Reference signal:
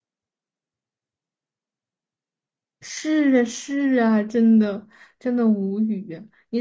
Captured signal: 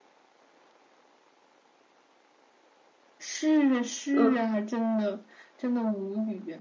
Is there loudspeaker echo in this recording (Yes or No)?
Yes